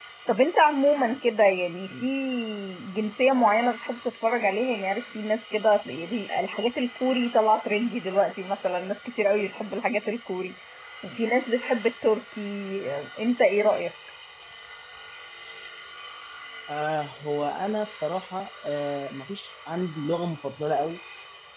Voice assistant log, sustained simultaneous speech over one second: none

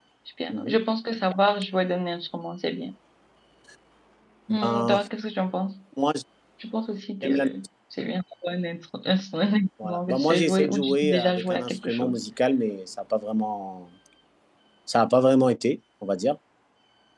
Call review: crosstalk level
present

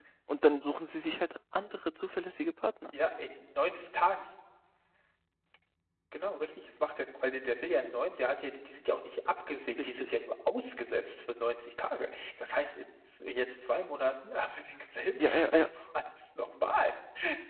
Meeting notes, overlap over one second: none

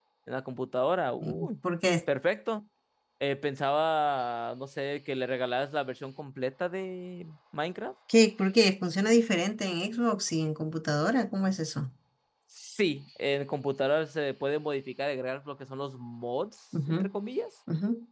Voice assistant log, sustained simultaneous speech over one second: none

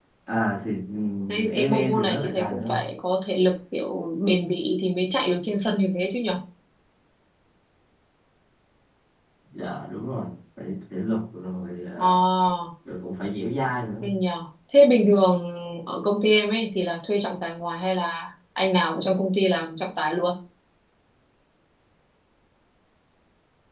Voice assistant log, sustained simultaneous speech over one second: present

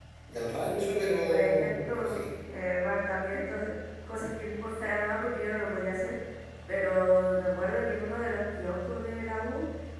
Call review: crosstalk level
present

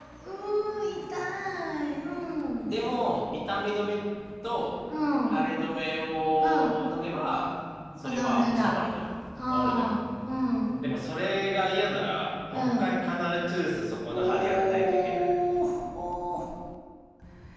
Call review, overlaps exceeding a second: present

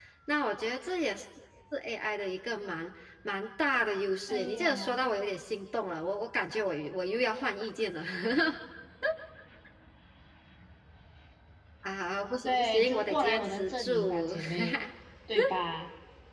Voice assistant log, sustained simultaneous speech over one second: present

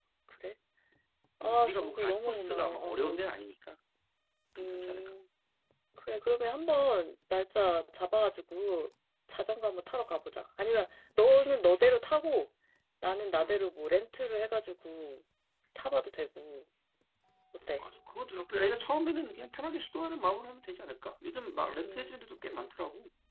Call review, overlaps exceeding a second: present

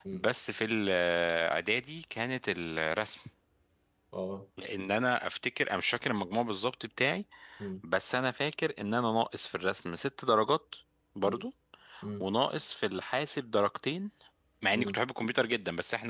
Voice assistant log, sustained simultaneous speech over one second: none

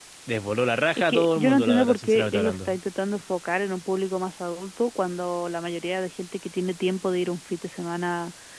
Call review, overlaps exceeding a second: present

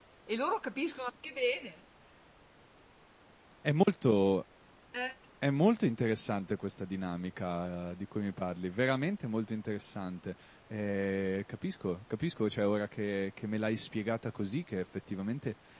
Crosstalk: none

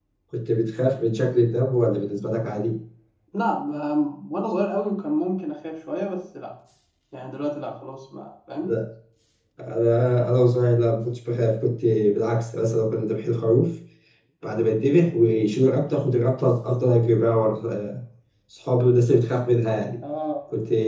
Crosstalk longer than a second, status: none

